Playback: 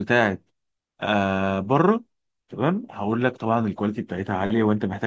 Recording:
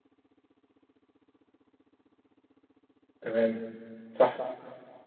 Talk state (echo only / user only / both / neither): user only